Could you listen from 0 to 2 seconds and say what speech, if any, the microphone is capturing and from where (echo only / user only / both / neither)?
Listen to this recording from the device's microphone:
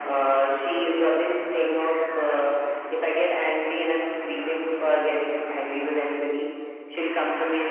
echo only